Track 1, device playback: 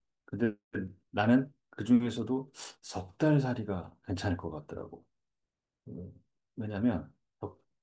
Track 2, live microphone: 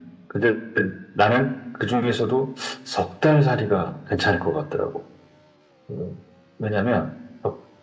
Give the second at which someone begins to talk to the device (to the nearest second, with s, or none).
none